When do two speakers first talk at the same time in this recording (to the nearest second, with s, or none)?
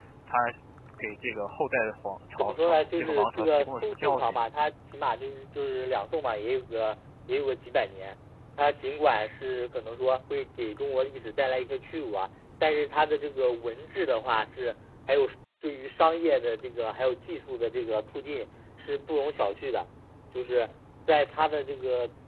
2 s